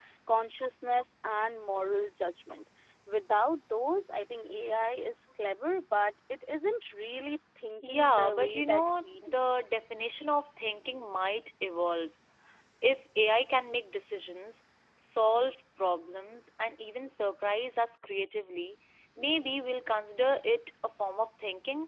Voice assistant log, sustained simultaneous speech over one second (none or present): present